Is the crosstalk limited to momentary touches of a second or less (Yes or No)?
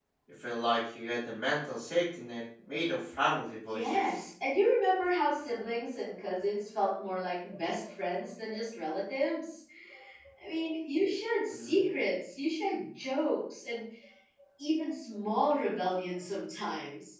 Yes